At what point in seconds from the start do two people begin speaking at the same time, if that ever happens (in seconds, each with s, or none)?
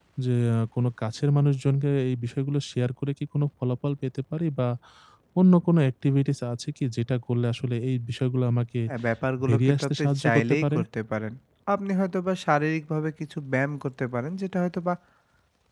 9.5 s